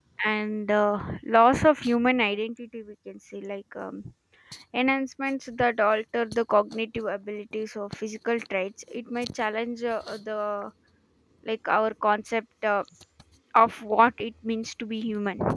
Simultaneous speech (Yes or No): No